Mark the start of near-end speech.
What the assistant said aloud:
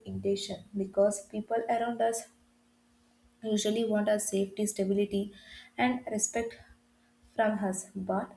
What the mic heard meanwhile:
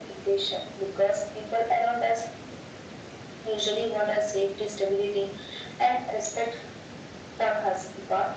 none

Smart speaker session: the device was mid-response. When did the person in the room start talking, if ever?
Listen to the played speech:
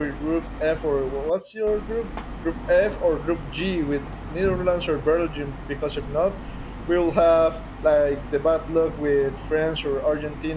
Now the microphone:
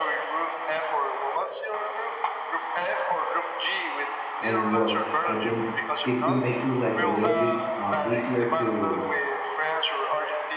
4.4 s

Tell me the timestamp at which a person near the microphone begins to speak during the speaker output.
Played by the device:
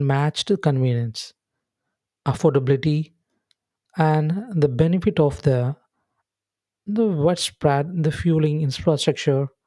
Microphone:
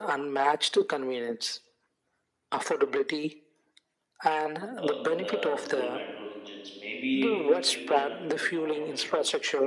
4.8 s

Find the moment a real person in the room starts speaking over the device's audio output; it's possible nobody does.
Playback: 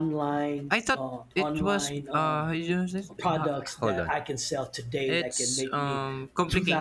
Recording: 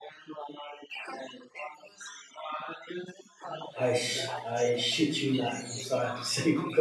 3.8 s

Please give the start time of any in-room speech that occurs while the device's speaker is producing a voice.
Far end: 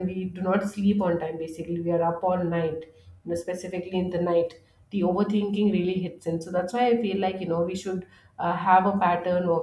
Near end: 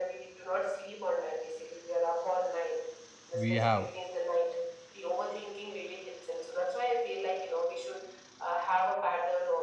3.4 s

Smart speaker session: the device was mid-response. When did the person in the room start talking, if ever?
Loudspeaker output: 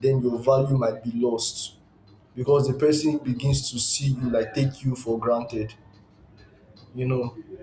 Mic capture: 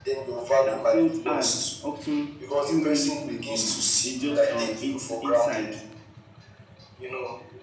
0.6 s

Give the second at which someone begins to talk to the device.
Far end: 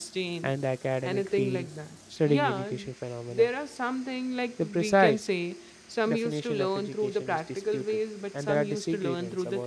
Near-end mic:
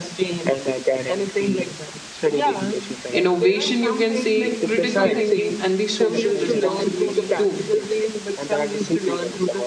3.2 s

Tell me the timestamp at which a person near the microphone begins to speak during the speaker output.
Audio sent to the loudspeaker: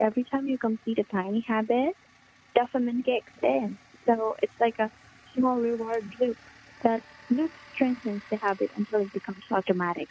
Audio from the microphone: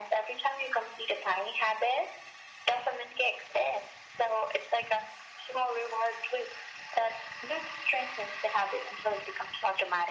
none

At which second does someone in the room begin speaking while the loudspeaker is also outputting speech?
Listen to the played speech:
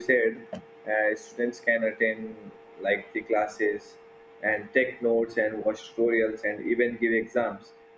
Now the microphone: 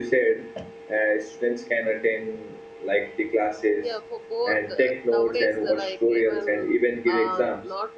3.8 s

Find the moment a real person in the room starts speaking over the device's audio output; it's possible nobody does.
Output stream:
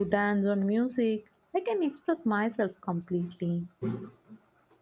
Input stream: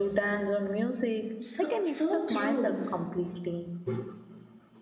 1.4 s

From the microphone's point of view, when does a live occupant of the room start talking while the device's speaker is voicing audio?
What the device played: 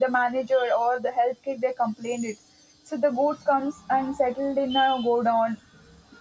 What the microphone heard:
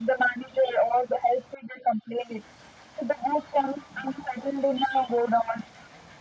none

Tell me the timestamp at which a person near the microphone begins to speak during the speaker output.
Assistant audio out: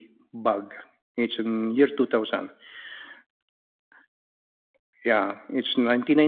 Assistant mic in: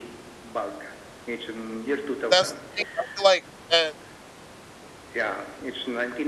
2.3 s

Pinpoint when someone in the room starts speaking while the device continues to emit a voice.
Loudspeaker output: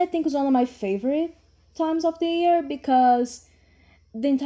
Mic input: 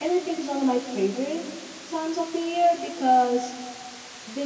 none

